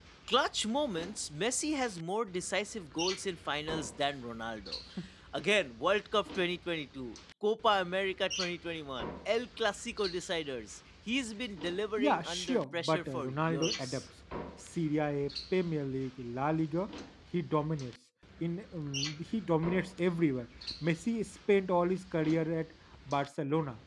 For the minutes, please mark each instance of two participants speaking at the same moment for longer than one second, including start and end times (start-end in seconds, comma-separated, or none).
12.0-14.0